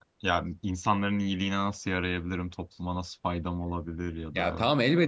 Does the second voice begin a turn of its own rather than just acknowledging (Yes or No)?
Yes